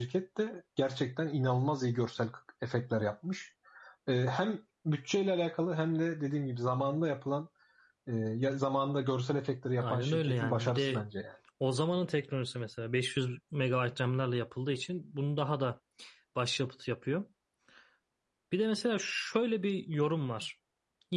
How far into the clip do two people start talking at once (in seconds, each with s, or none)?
9.8 s